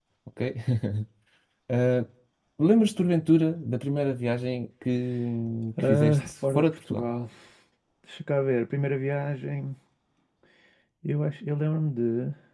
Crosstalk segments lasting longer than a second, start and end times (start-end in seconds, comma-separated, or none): 5.8-7.0